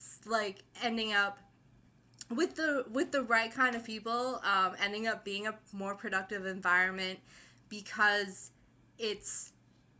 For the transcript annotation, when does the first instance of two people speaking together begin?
none

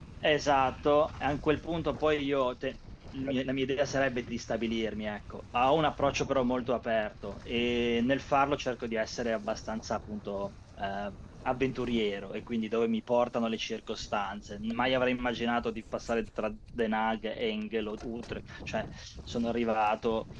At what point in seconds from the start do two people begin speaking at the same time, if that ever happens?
none

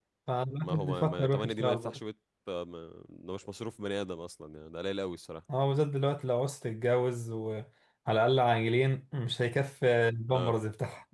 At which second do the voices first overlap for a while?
1 s

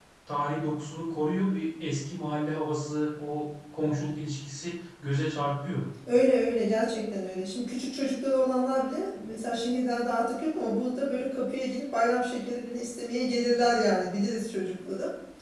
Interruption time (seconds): none

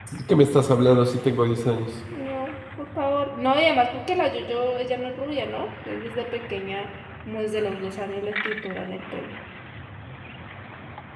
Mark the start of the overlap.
none

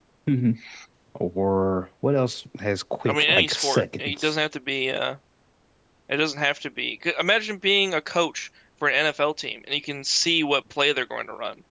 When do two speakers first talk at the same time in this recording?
3 s

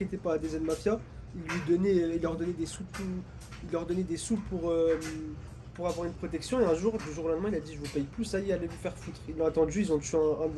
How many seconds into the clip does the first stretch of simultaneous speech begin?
none

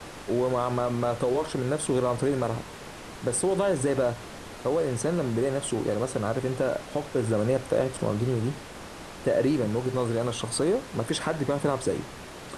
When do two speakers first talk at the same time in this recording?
none

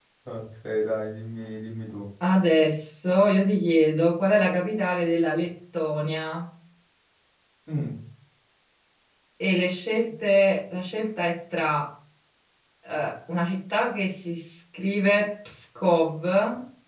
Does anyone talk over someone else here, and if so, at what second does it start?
none

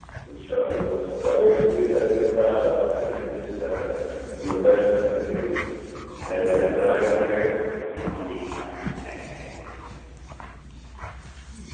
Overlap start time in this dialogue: 6 s

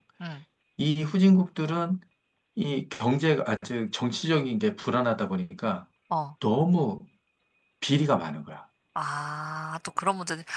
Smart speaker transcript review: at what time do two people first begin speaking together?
none

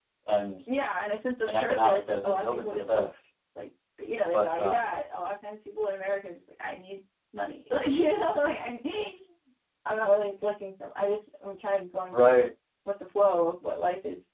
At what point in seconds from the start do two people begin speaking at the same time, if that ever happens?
1 s

